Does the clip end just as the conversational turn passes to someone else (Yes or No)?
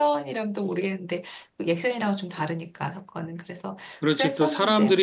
Yes